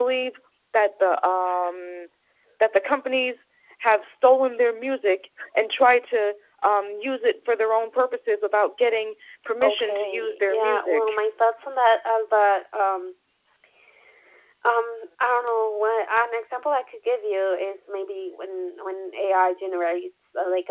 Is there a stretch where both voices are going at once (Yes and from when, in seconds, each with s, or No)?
Yes, from 9.6 s